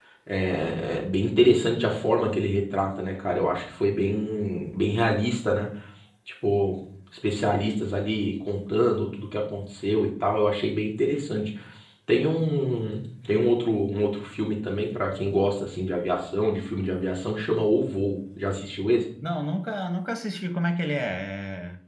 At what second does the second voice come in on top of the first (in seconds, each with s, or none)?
none